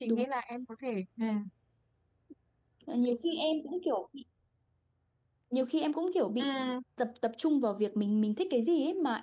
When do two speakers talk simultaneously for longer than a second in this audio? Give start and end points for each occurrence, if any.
none

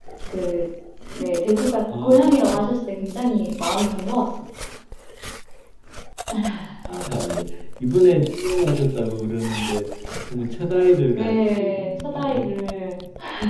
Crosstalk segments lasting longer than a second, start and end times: 11.1-12.5

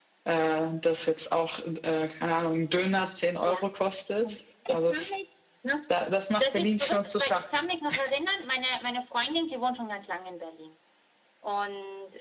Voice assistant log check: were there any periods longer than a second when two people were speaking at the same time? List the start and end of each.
6.4-7.6

